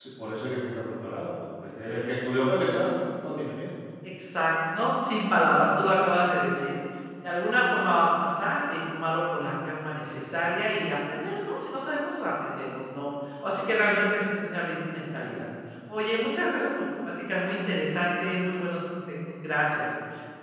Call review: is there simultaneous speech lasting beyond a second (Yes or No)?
No